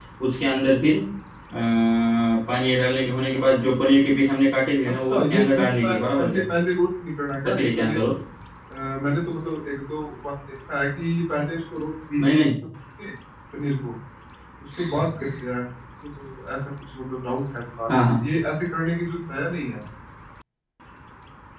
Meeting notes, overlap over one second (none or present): present